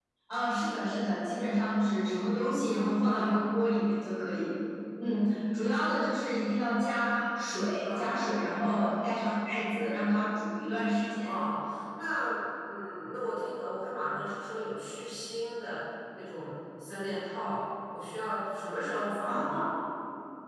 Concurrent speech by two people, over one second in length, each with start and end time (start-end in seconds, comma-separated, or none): none